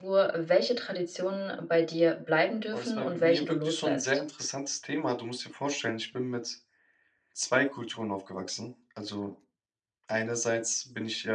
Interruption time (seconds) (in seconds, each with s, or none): 2.7 s